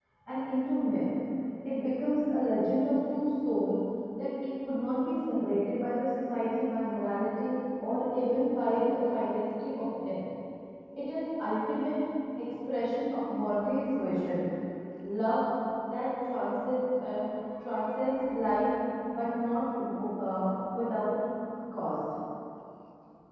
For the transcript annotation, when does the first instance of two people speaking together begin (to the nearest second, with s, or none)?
none